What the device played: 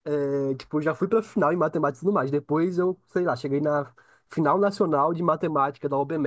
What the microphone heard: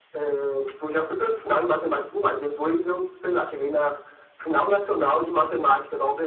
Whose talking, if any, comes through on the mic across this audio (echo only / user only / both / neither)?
echo only